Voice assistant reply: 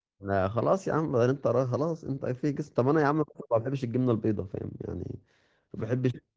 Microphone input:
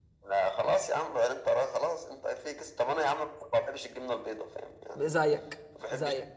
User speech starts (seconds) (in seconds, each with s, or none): 5.0 s